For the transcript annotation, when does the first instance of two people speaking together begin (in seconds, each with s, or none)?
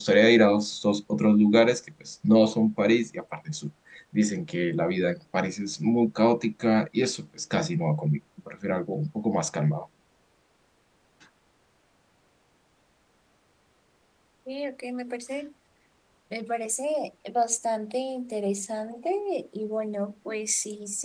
none